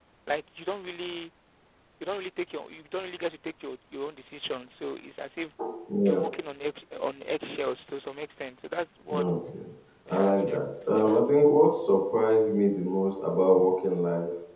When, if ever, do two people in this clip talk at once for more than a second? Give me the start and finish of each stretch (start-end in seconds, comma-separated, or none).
10.1-11.3